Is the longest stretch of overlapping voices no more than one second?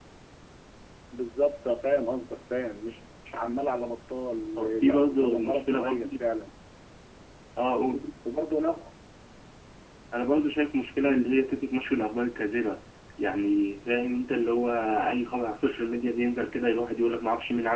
No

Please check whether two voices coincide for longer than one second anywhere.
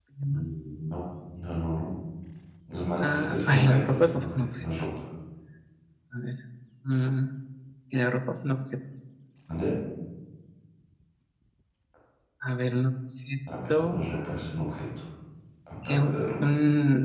Yes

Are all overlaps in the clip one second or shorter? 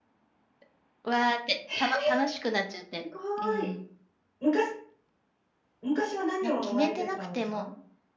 No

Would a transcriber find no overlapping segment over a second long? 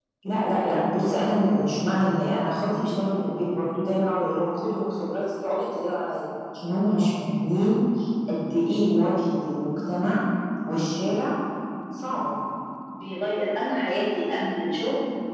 Yes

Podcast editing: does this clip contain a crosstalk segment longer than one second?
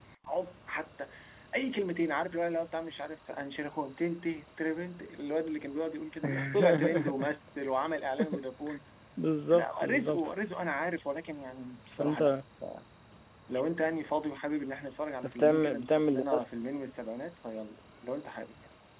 Yes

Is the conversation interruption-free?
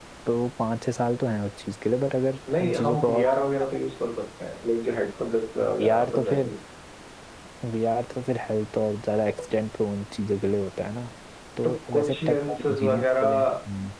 No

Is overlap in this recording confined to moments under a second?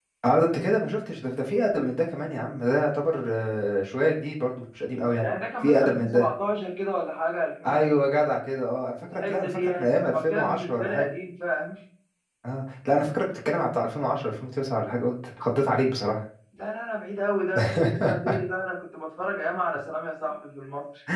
No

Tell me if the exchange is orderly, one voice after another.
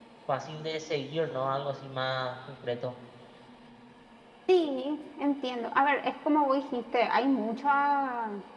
Yes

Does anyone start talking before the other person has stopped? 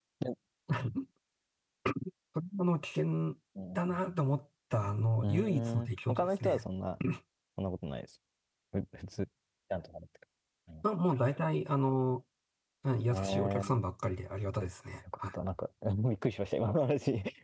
Yes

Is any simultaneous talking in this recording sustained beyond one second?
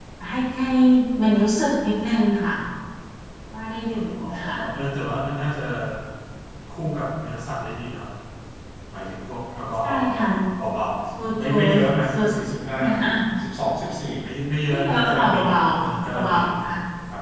Yes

